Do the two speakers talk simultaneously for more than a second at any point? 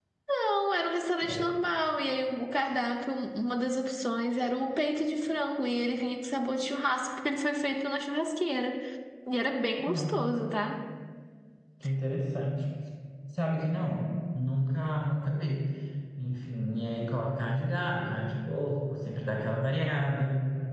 No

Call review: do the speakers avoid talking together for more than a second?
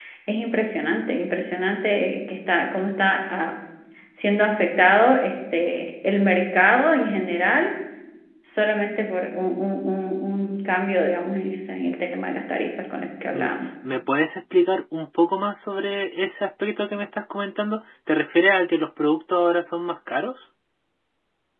Yes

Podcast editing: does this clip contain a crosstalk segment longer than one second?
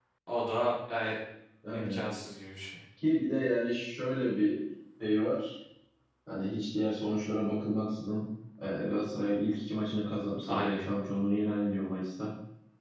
No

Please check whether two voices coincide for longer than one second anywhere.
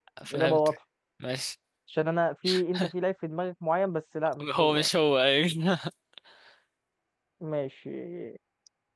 No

